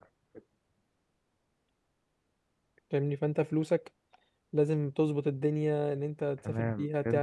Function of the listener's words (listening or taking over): taking over